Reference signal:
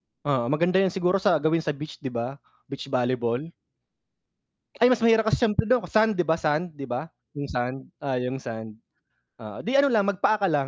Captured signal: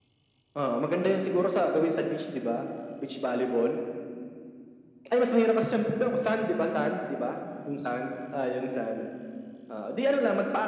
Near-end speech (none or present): none